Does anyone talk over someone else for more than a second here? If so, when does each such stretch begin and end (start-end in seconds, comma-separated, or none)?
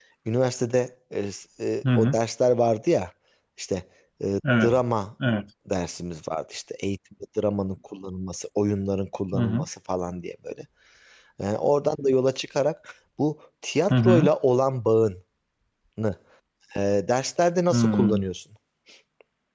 none